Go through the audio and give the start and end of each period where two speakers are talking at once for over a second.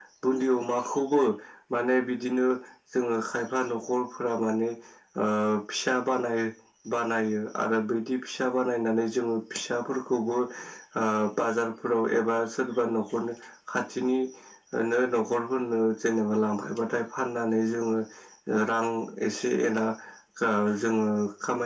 none

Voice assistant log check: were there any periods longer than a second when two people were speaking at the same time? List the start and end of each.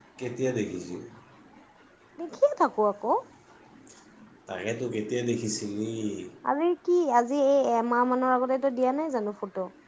none

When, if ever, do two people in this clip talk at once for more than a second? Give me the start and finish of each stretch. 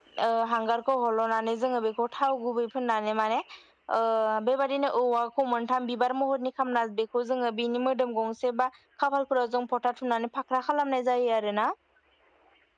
none

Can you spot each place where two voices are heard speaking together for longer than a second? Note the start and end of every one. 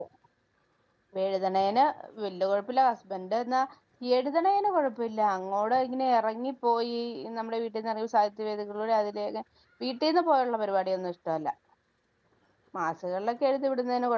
none

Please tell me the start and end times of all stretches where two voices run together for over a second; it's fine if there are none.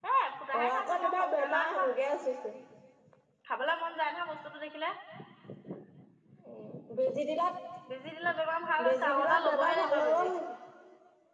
0.6-1.8, 8.9-10.3

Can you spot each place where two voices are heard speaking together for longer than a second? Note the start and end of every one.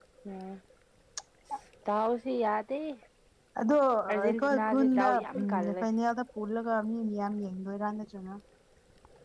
4.2-5.8

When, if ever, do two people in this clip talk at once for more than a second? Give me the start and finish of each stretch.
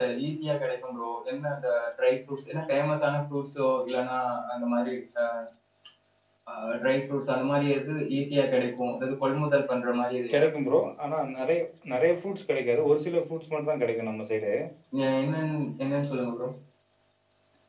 none

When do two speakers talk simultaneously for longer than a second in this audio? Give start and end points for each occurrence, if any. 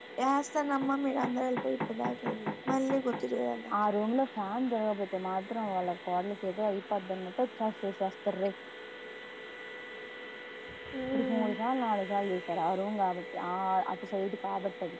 none

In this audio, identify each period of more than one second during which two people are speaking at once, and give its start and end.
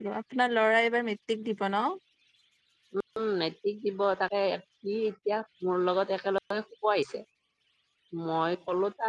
none

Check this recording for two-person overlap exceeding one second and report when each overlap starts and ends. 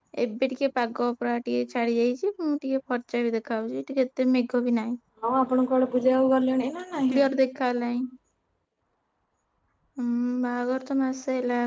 none

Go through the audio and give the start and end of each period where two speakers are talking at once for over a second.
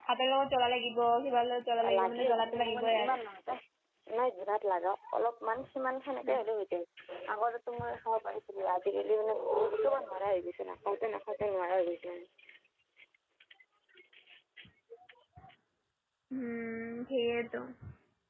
1.9-3.1

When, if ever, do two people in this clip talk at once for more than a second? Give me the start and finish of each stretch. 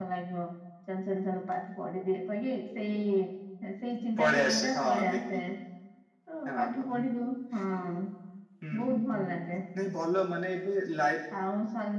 4.2-5.4

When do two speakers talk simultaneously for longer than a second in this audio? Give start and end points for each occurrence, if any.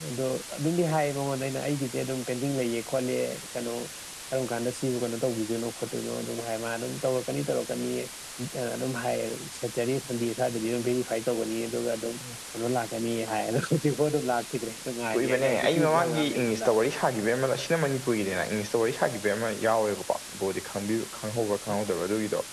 15.1-16.7

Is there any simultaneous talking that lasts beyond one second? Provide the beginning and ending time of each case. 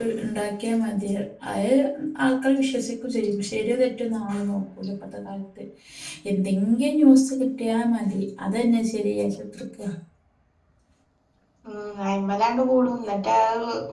none

